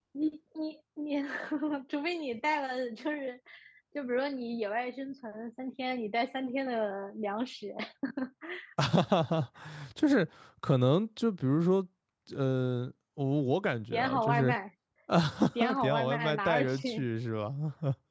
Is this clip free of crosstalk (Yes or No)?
No